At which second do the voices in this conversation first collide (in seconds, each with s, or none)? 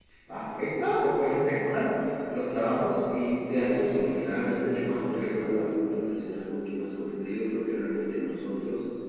3.5 s